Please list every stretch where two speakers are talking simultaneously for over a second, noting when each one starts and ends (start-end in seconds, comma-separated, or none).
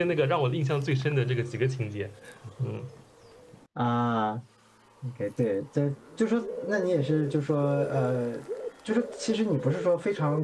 none